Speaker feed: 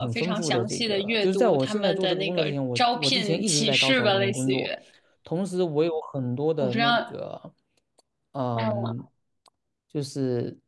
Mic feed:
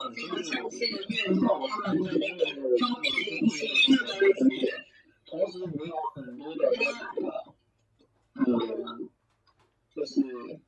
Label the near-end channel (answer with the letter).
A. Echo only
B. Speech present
A